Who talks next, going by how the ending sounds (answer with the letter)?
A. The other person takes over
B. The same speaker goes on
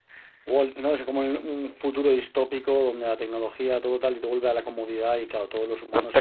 A